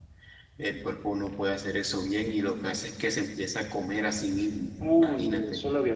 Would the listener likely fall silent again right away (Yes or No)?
No